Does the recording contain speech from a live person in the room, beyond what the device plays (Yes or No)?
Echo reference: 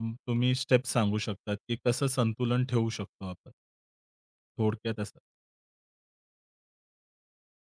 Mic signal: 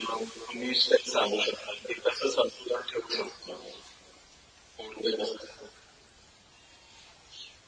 No